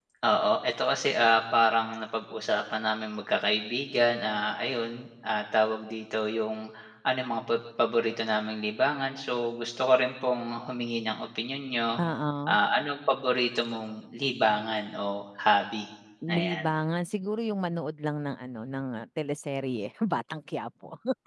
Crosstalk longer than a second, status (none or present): none